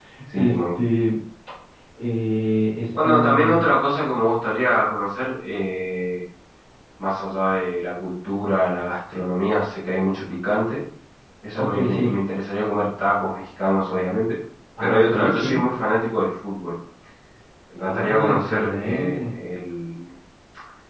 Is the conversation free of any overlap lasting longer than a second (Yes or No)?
No